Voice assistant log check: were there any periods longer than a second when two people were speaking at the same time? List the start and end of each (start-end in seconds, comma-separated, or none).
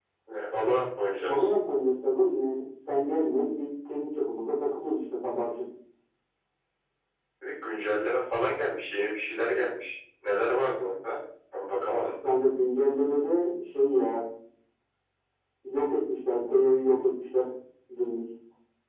none